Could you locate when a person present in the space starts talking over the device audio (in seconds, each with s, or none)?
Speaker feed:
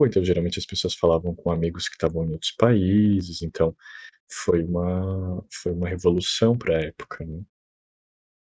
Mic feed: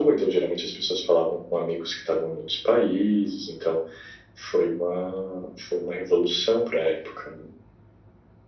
none